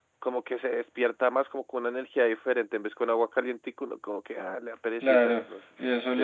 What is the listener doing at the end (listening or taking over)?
taking over